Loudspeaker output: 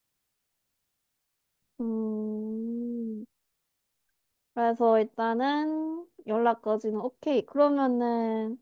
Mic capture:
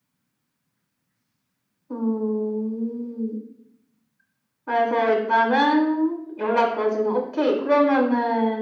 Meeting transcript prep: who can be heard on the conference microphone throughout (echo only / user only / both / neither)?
echo only